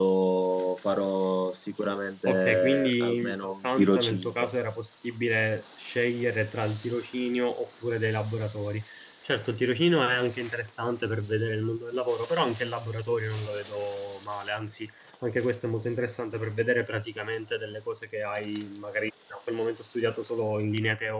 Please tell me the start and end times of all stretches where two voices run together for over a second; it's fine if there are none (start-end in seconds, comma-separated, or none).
2.2-4.5